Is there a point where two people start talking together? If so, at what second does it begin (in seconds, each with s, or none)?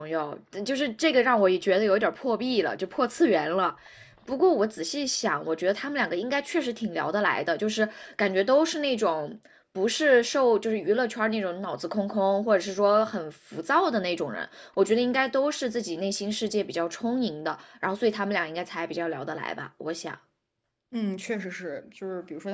none